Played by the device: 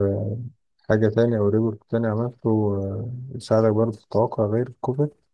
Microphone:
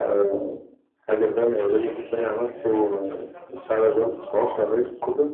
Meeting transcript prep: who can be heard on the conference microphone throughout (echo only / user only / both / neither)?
both